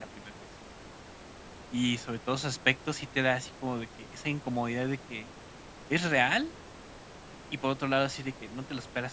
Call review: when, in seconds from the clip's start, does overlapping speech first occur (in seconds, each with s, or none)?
none